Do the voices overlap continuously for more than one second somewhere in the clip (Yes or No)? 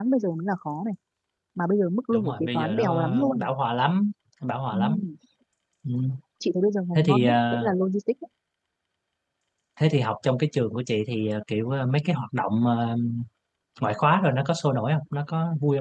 Yes